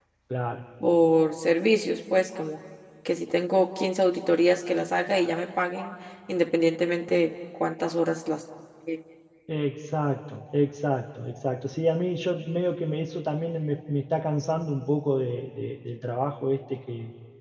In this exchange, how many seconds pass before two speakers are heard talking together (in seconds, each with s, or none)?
none